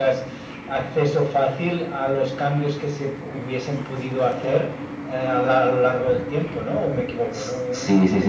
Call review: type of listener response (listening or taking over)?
taking over